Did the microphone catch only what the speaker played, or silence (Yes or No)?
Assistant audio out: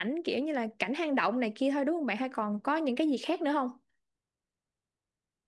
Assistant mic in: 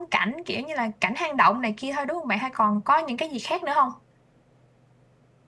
Yes